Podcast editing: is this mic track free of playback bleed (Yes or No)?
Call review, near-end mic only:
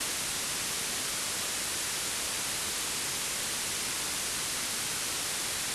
Yes